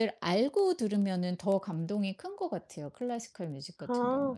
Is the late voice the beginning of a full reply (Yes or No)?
Yes